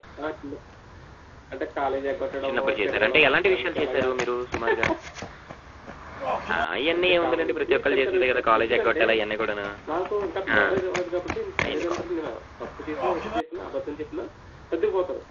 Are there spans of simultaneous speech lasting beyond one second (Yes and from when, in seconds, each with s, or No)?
Yes, from 2.4 s